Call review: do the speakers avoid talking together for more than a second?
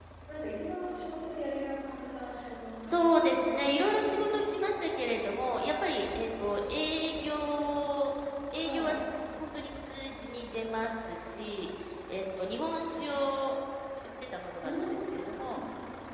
No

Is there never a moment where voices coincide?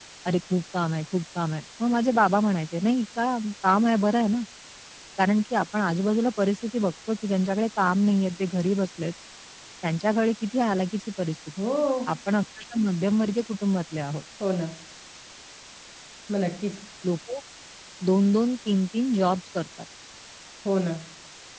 Yes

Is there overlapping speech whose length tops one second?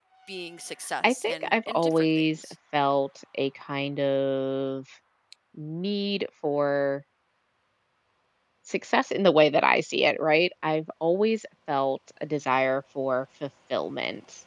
Yes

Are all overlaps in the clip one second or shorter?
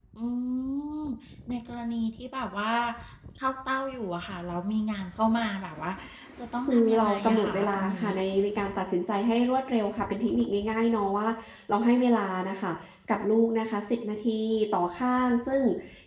No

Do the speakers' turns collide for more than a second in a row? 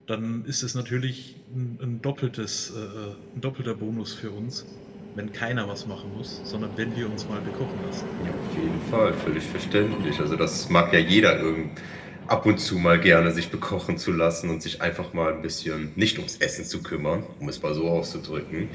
No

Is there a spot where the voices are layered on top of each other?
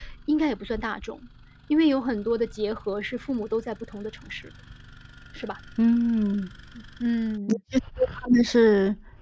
No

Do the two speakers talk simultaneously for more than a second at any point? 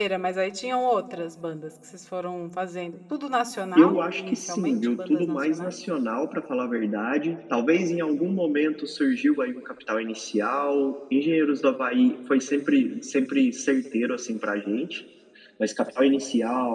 Yes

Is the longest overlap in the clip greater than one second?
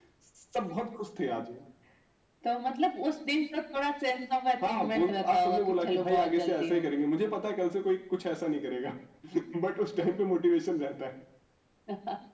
Yes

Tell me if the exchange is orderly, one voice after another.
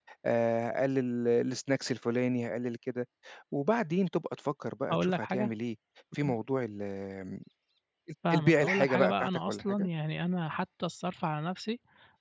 No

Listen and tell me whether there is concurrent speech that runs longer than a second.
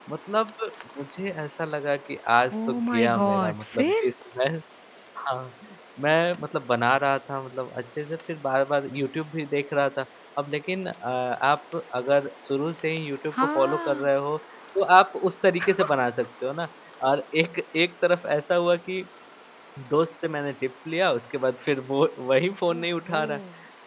Yes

